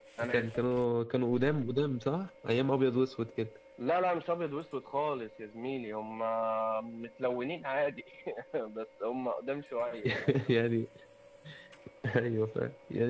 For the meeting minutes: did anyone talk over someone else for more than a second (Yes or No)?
No